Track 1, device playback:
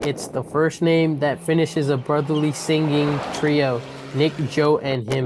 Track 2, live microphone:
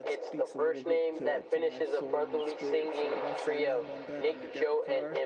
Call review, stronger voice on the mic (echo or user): echo